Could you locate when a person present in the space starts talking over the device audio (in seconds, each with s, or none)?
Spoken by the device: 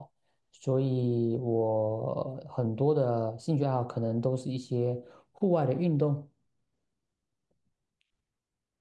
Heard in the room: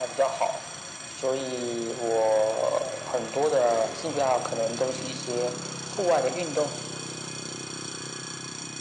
none